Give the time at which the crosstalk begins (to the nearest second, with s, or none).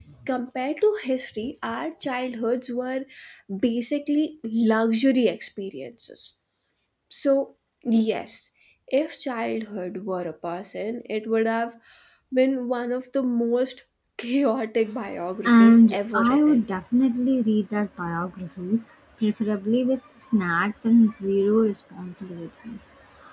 15 s